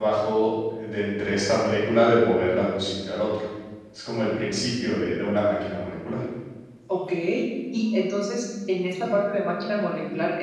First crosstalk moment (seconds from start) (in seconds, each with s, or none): none